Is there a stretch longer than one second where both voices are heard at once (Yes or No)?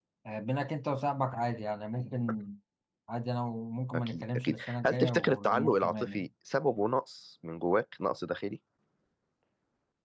Yes